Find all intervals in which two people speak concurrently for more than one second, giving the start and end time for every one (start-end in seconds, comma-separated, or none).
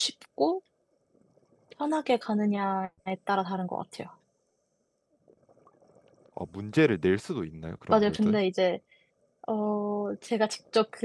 none